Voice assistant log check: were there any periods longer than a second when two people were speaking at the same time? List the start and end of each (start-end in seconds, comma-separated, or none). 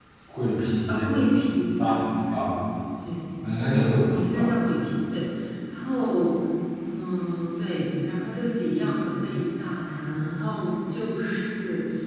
none